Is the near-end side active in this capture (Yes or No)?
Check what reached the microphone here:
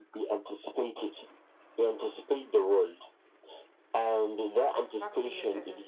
Yes